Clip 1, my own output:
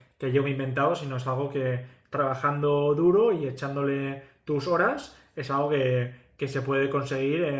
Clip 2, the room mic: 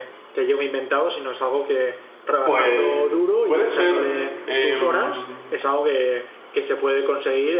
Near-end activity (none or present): present